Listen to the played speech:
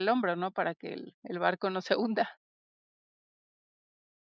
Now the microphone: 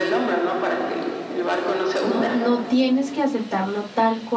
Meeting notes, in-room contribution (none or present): present